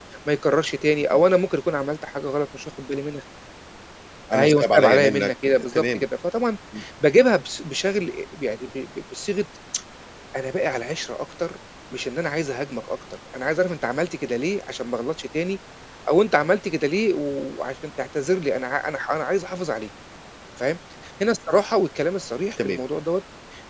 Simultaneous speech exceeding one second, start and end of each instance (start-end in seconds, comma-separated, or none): 4.3-6.0